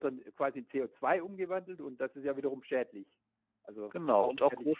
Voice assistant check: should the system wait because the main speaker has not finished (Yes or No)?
No